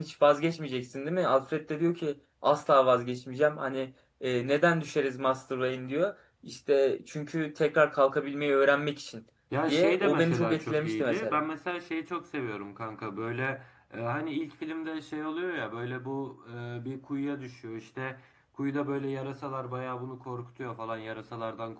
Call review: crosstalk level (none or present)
present